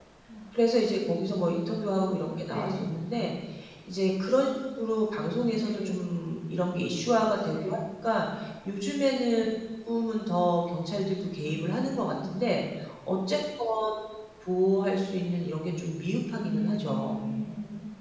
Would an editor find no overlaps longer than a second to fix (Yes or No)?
No